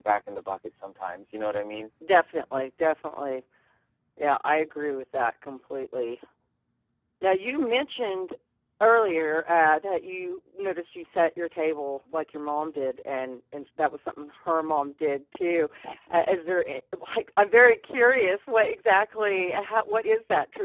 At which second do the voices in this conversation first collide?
none

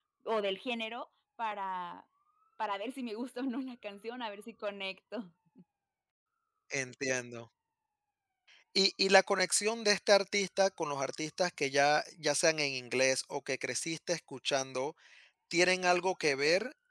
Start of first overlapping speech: none

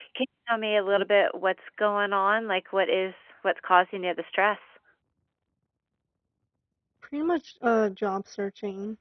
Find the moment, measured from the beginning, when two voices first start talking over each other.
none

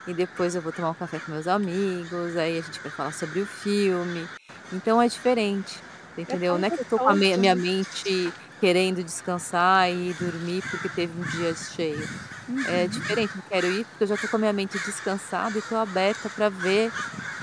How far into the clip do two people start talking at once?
6.3 s

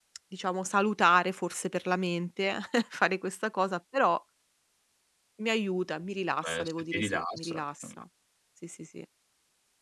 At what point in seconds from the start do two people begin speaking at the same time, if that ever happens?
6.4 s

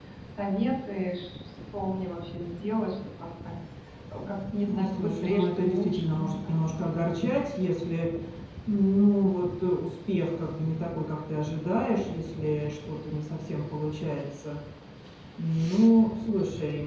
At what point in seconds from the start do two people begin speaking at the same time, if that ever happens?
4.6 s

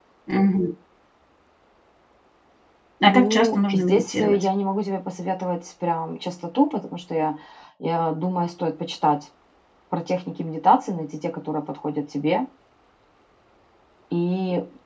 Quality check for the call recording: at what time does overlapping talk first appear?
3.0 s

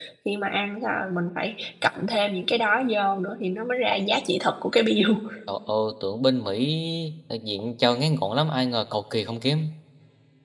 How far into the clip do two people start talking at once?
none

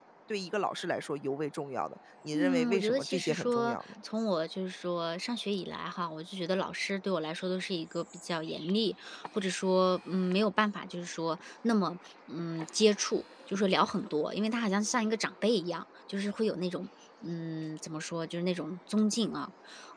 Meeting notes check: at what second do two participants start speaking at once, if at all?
2.3 s

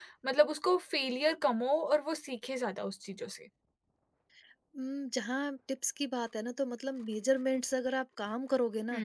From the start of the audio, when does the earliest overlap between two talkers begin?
none

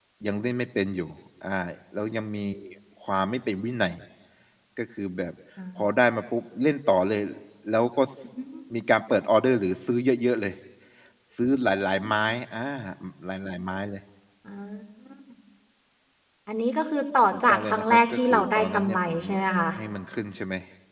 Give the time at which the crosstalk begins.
17.3 s

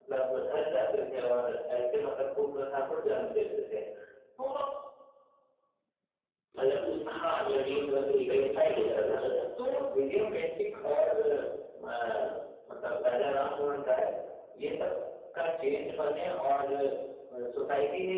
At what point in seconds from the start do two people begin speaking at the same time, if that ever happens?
7.1 s

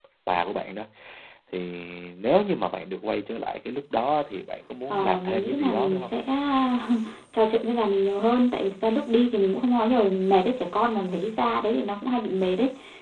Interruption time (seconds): 4.9 s

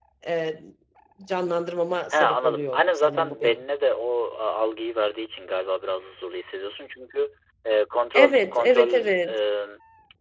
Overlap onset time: 2.1 s

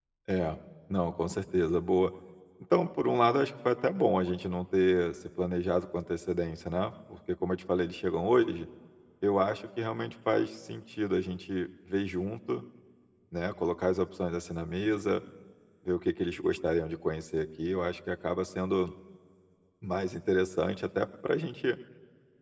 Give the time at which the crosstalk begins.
none

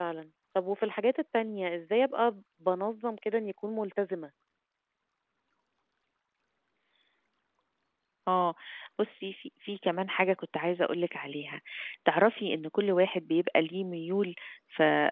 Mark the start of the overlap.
none

